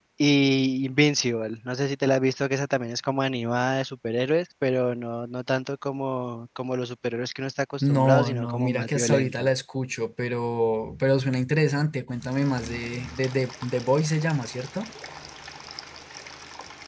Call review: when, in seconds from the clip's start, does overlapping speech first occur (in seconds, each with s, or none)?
7.8 s